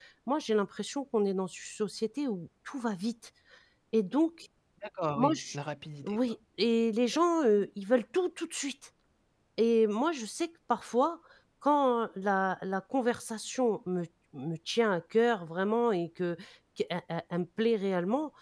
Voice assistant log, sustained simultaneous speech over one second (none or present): none